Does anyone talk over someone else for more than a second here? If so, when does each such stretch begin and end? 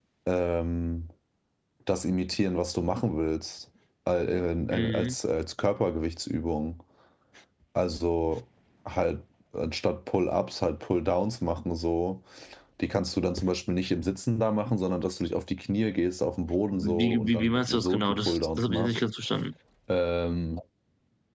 16.8-18.9

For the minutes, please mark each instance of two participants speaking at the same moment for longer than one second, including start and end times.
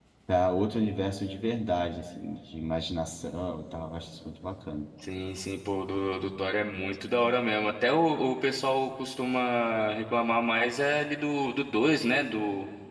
none

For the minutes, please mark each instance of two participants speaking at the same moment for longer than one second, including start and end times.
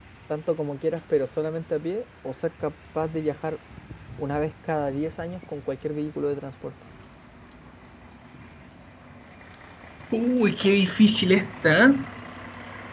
none

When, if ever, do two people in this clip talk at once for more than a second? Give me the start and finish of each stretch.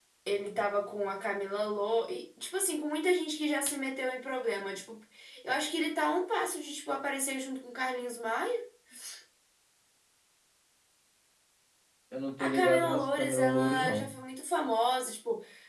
12.4-14.0

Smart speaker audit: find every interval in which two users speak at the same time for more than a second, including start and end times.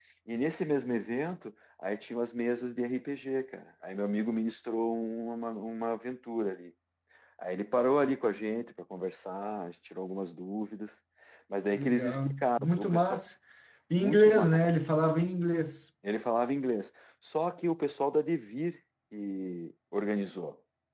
11.7-13.2

